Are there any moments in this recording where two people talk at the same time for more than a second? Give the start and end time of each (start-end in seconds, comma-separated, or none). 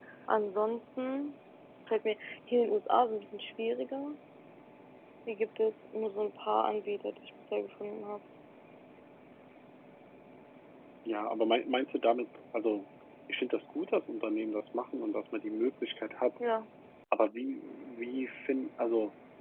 none